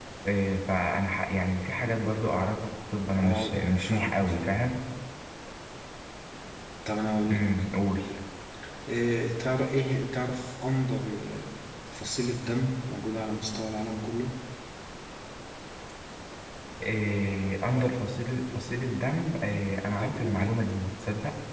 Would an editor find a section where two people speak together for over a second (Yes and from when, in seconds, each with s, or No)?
Yes, from 3.2 s